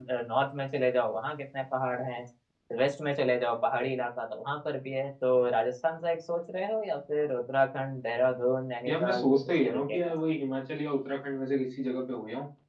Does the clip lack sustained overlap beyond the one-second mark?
No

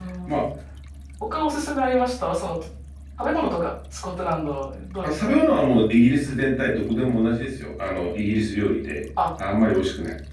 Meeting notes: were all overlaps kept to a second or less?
Yes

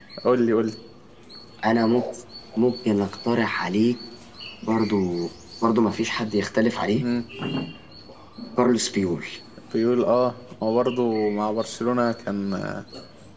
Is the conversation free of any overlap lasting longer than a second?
Yes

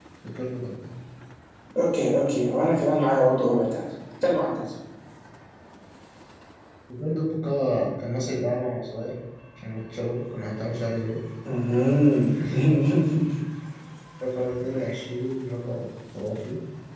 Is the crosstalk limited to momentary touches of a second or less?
Yes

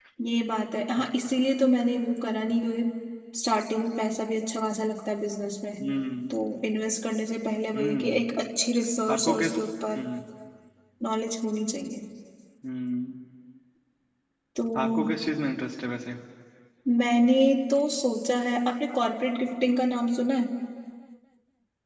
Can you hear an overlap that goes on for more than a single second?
No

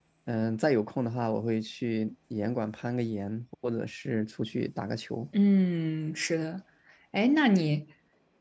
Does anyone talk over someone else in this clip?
No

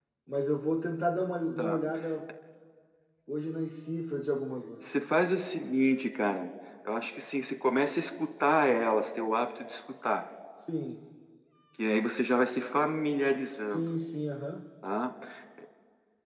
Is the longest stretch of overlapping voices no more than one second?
Yes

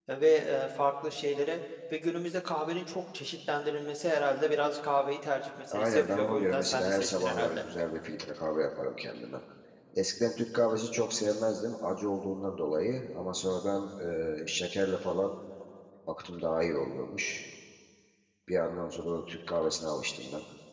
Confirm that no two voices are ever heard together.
No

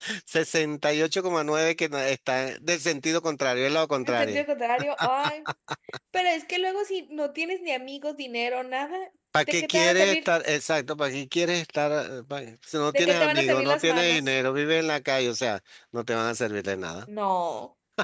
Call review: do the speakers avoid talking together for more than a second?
No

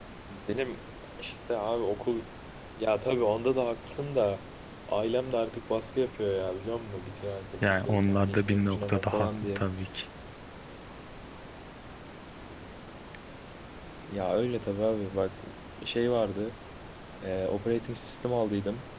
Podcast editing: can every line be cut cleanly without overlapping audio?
No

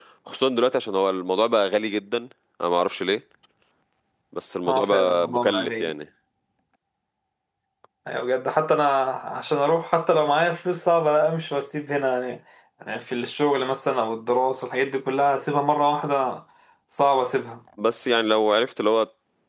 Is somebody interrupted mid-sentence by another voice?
Yes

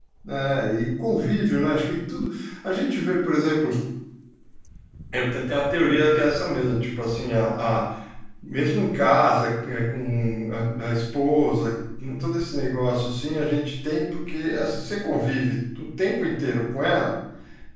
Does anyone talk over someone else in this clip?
No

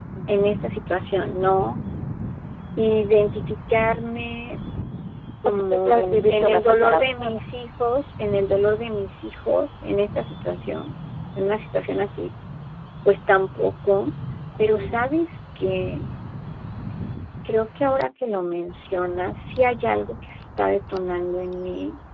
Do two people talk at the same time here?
Yes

